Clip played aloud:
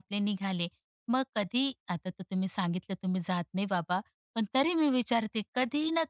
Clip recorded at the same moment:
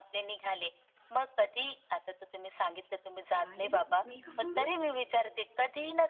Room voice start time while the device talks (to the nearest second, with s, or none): 3 s